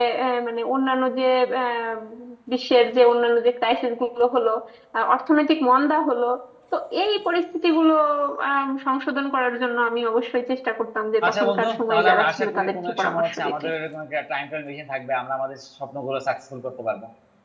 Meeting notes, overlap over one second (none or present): present